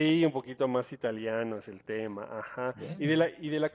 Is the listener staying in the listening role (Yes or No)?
Yes